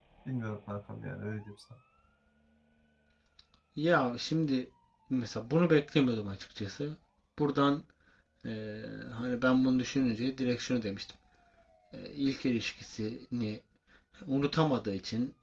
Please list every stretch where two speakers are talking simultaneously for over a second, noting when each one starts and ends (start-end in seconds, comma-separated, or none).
none